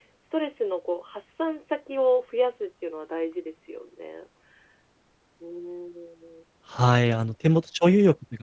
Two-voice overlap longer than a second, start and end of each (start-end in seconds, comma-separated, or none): none